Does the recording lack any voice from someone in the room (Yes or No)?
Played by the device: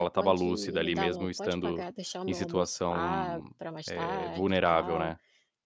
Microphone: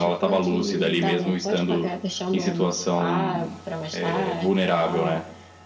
Yes